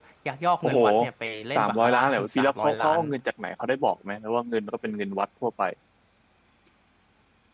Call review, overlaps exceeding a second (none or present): present